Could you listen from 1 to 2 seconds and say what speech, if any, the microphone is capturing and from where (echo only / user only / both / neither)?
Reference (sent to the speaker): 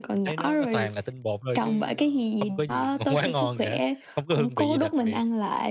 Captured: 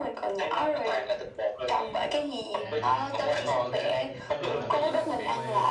echo only